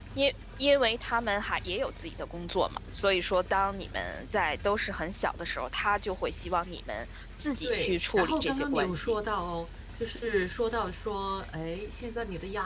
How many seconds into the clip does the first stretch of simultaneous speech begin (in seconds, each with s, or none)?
7.6 s